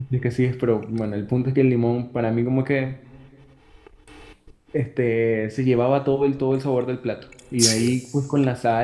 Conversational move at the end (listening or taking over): listening